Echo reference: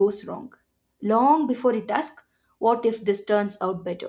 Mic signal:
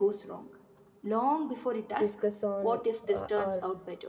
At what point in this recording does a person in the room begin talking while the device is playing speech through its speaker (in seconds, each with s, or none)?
1.9 s